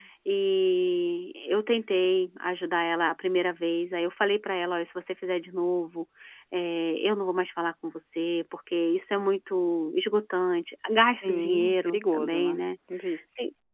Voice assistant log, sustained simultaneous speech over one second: present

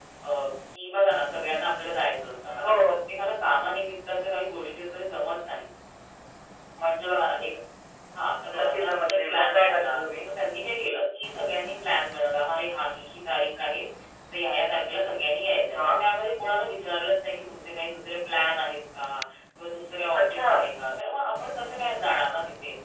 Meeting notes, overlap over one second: present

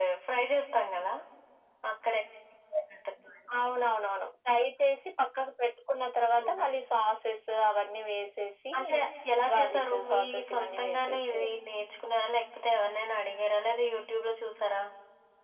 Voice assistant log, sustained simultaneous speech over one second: present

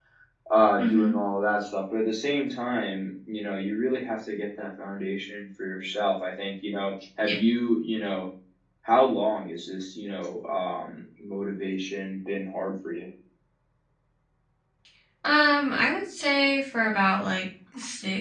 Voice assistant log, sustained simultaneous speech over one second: none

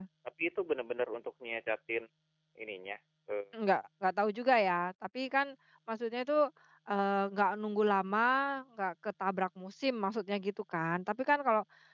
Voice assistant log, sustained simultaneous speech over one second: none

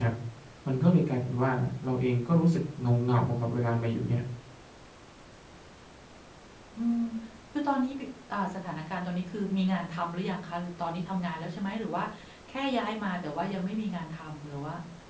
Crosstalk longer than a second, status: none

